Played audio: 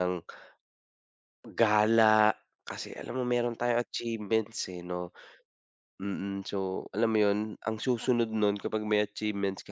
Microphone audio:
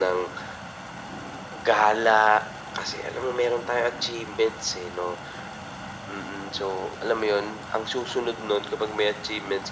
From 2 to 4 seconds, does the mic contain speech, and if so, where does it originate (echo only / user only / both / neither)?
echo only